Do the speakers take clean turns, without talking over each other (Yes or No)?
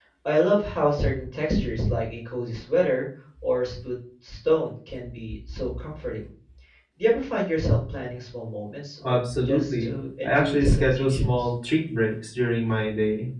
No